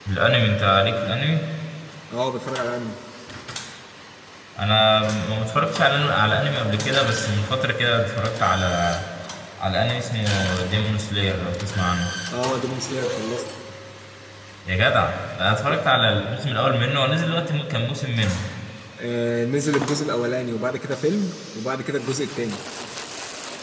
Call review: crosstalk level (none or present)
none